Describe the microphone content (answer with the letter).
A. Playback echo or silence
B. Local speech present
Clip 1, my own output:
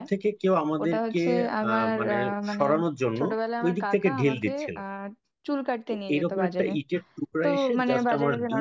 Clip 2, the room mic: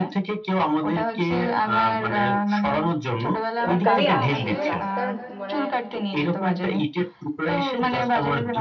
B